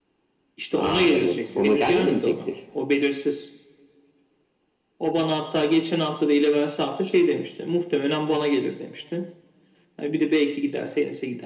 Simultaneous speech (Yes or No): Yes